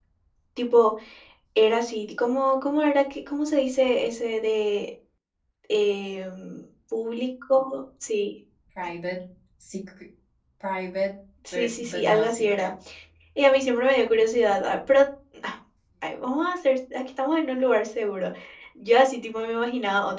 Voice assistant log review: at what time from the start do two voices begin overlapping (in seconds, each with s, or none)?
11.4 s